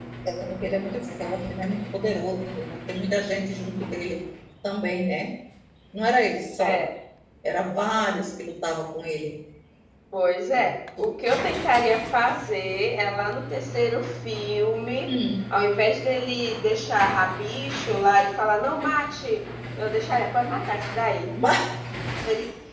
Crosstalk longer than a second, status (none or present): none